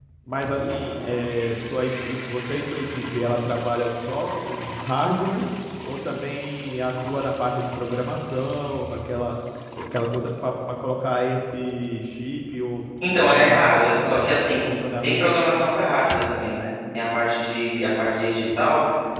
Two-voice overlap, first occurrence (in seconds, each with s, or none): 13.2 s